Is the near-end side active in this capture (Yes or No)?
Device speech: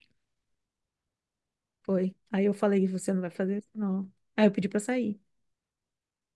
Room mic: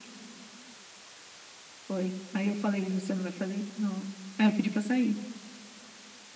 No